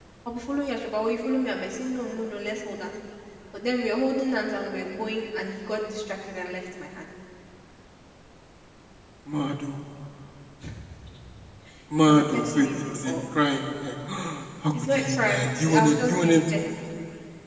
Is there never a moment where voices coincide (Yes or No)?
No